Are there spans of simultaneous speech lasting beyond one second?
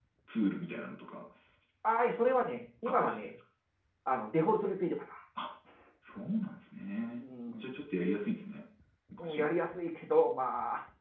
No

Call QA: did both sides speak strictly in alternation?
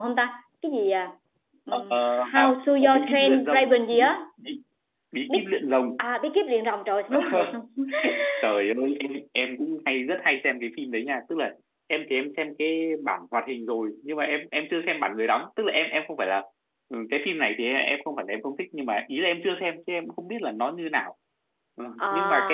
No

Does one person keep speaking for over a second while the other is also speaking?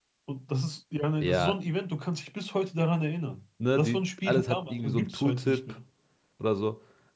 Yes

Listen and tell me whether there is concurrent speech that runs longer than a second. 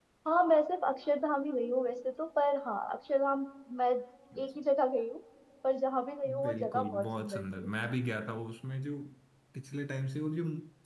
Yes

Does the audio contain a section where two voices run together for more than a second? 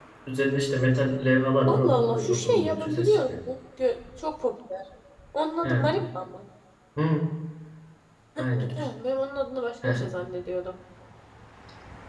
Yes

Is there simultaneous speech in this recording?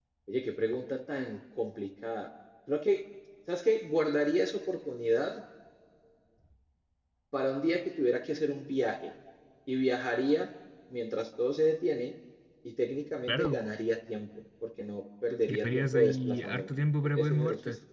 Yes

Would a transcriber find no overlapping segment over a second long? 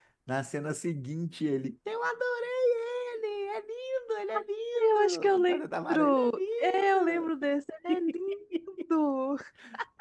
No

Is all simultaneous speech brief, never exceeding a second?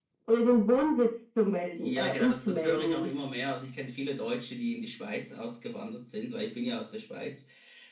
No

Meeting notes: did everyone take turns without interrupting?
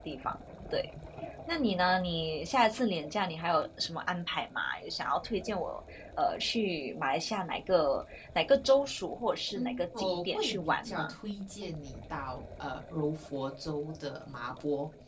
No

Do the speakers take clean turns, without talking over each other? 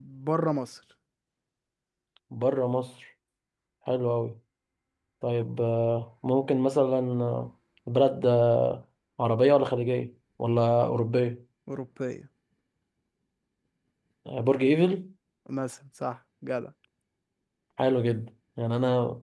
Yes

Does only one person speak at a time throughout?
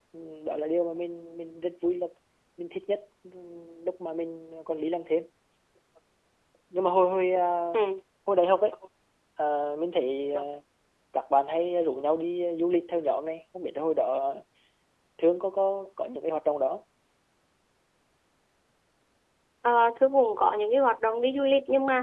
Yes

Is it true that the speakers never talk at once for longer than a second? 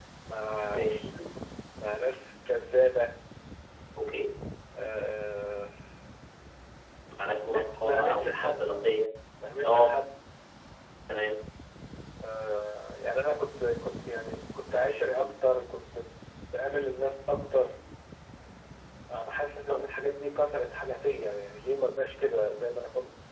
No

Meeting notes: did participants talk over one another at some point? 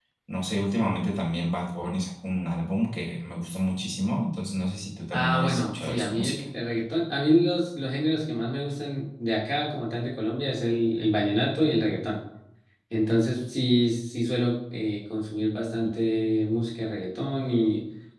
Yes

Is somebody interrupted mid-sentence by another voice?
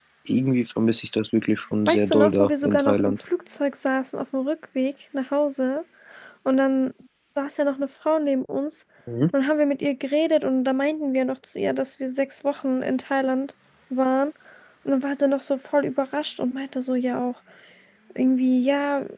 Yes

